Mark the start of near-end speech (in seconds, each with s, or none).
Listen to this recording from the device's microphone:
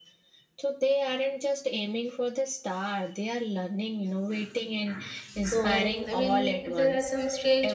5.5 s